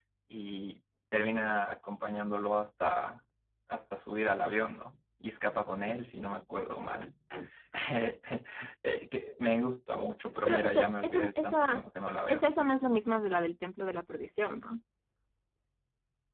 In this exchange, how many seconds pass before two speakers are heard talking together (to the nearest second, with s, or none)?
10 s